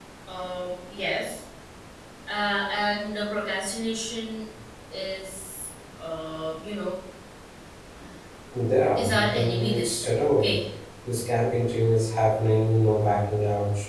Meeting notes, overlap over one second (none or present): present